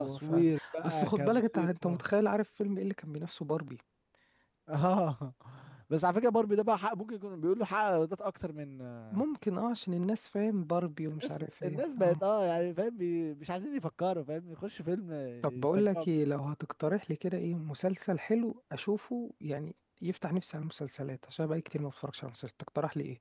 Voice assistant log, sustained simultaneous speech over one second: present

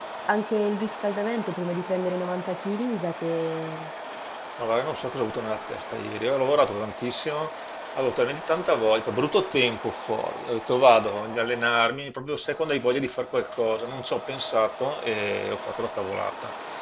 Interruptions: none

